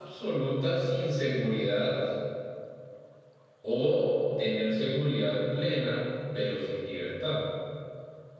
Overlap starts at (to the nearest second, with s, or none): none